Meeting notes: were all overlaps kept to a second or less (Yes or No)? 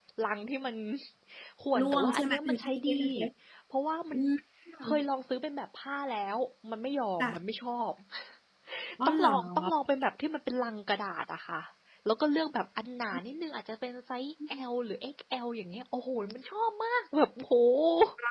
No